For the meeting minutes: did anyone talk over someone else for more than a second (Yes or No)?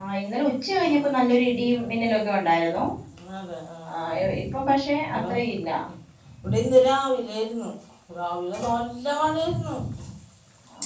No